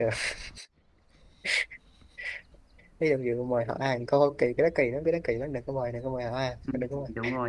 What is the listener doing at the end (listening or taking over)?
taking over